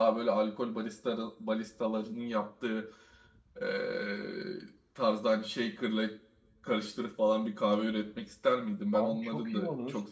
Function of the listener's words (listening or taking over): taking over